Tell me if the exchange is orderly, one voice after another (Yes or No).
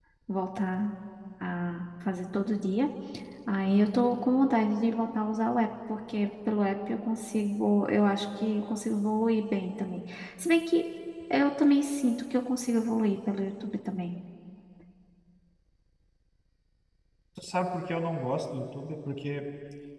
Yes